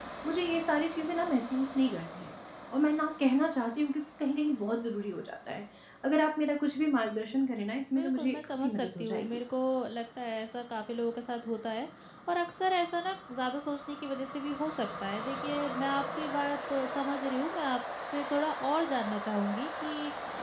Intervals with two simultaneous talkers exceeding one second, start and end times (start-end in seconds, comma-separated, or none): 7.9-9.4